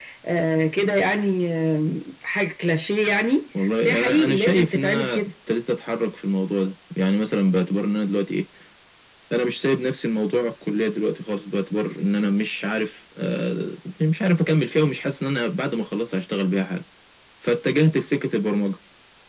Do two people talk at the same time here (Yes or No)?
Yes